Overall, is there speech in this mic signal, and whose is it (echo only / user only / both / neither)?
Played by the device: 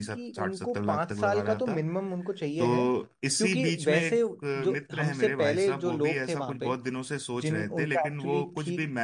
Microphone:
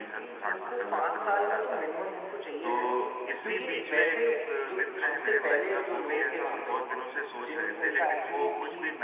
echo only